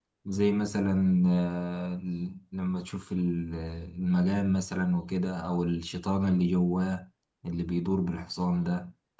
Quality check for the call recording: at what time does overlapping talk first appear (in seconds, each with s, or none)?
none